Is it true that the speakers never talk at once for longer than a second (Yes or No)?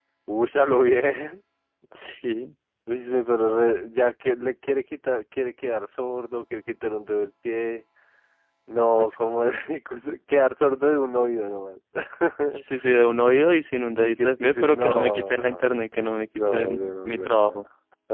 No